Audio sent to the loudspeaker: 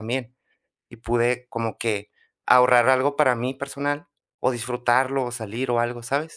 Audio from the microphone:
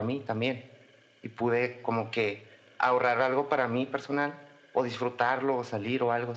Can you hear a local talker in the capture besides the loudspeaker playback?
No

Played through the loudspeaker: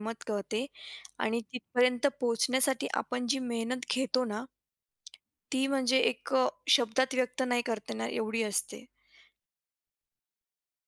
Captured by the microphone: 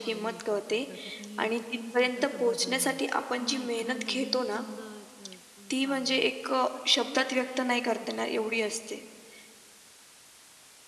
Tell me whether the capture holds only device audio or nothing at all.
No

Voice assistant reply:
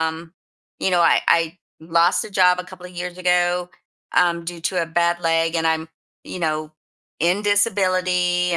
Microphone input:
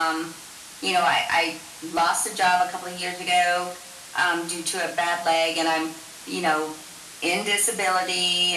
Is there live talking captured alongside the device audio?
No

